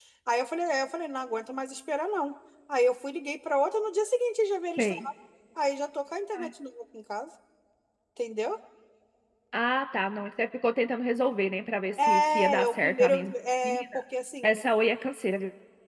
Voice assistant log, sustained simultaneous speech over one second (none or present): present